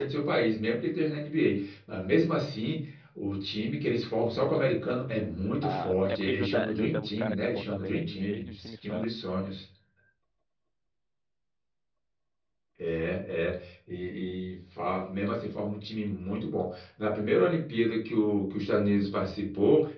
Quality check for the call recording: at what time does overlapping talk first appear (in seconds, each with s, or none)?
5.6 s